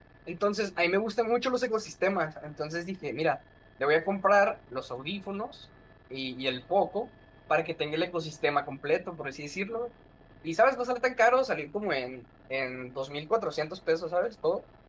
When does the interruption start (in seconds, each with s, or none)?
none